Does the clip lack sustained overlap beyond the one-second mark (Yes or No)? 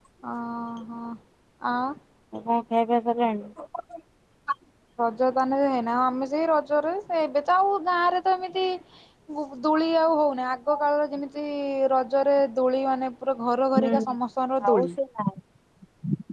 Yes